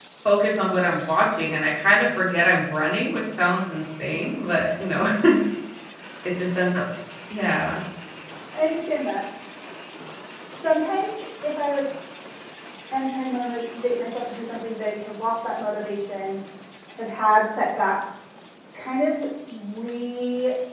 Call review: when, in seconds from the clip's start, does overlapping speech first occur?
none

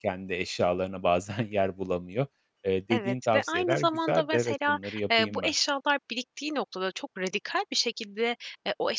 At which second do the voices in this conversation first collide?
2.9 s

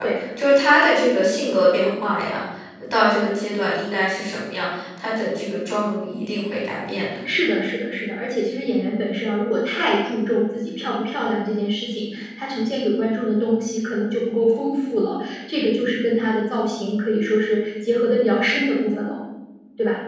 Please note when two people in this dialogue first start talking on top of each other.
none

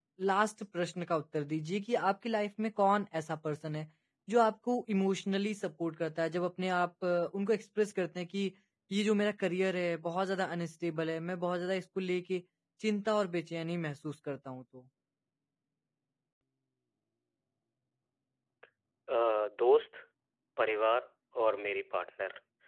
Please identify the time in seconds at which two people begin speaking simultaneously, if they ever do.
none

